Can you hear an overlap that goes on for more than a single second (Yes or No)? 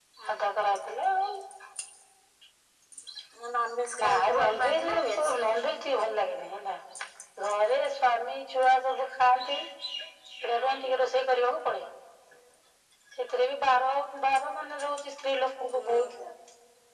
Yes